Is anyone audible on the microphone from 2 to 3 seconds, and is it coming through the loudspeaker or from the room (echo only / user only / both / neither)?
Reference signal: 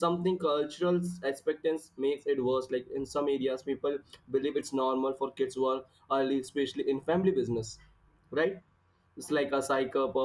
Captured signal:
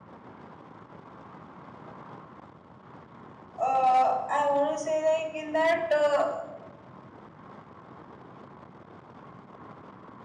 neither